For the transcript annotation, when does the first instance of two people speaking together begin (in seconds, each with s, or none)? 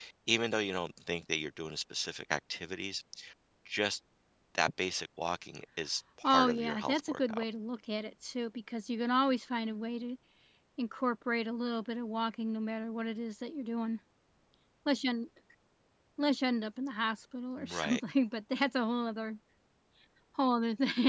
6.2 s